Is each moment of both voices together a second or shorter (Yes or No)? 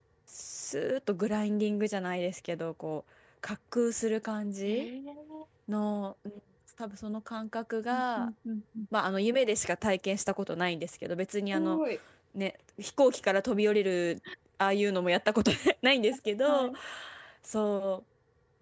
Yes